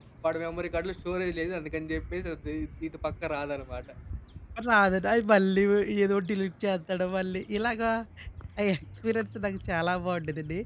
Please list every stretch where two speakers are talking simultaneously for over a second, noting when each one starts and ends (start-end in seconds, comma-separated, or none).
none